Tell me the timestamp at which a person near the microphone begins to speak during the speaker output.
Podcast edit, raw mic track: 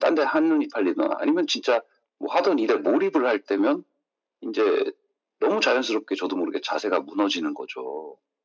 none

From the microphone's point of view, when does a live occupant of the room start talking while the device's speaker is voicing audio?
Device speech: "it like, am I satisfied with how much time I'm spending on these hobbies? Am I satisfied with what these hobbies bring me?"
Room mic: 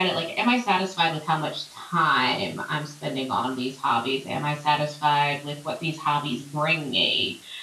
none

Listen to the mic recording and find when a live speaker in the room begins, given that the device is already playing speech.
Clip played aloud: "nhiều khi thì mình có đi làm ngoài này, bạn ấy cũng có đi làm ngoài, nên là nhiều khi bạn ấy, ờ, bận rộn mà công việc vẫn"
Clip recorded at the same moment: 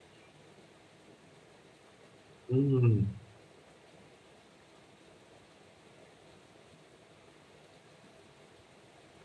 2.5 s

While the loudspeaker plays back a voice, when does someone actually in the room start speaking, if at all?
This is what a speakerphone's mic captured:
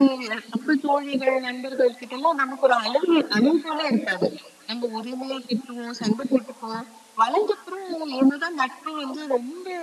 none

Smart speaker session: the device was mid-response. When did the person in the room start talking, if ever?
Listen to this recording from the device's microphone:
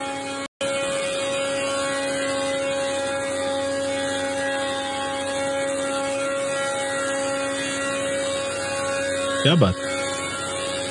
9.4 s

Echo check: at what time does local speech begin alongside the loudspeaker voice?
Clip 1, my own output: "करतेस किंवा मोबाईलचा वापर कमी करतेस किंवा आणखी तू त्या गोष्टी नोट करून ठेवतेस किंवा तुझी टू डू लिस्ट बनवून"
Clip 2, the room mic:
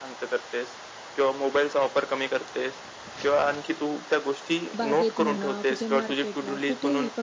4.8 s

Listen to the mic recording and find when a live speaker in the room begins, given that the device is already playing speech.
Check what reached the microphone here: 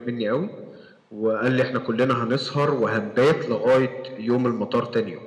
none

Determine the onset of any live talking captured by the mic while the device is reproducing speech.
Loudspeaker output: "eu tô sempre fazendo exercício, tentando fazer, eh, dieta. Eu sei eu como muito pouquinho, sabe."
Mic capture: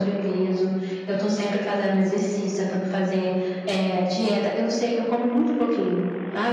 none

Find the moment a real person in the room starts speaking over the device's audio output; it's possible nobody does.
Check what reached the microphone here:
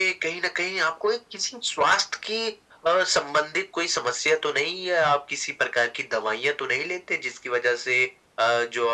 none

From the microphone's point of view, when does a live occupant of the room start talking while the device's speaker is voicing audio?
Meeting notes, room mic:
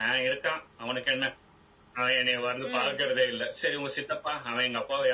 2.7 s

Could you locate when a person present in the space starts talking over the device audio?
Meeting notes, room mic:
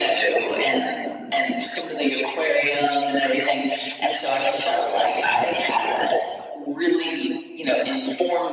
none

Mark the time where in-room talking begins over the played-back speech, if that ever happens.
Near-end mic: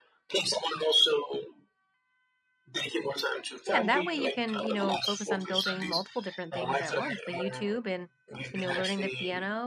3.6 s

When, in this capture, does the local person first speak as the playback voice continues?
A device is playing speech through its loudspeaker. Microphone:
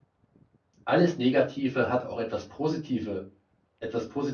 0.8 s

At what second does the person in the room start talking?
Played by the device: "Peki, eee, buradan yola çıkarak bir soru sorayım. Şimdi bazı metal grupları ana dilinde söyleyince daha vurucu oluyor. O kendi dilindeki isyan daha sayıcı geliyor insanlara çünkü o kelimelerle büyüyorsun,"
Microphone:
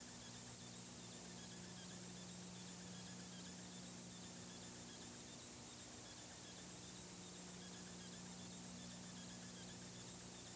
none

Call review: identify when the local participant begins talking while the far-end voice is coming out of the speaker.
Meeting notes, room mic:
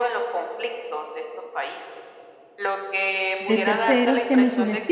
3.4 s

